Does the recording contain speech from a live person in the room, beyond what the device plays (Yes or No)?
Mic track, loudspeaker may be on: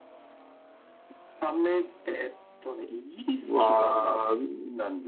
Yes